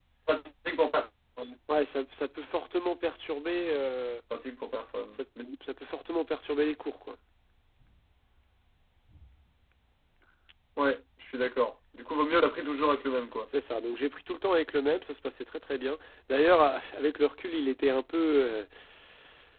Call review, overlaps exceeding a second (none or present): none